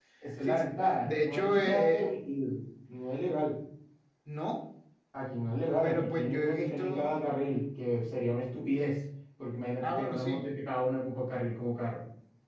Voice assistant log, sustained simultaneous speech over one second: present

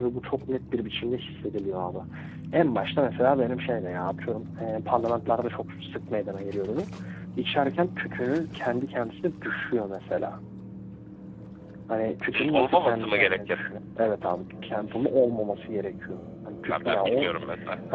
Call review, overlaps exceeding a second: present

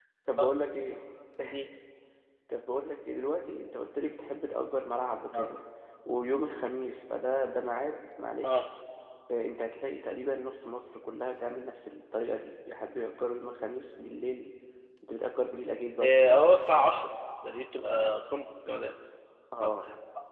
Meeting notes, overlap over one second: none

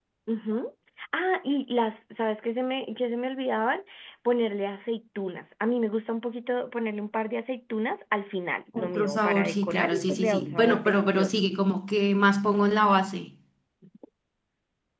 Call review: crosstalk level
present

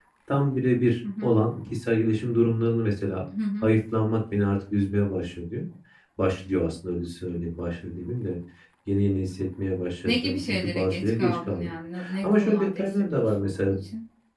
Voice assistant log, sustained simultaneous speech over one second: present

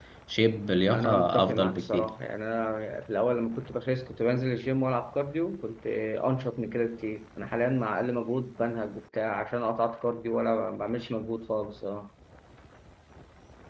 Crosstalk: present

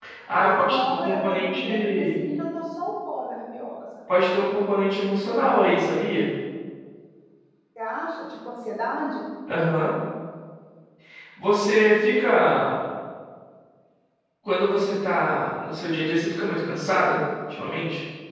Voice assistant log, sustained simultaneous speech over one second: present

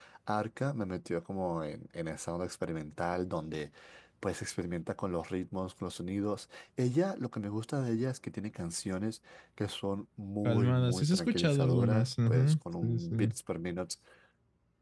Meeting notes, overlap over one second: present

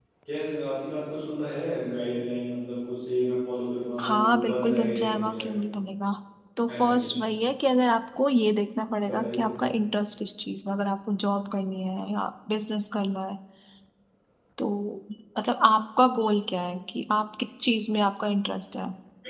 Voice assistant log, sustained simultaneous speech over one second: present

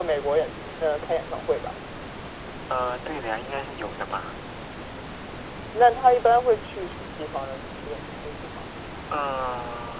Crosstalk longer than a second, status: none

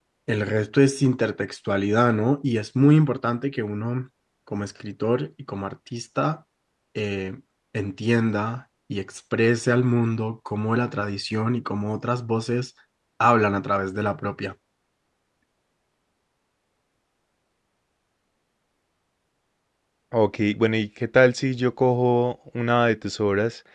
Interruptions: none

